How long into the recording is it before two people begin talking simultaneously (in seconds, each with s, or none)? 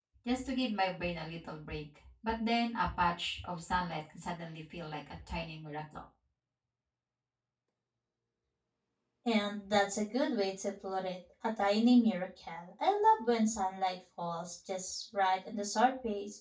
none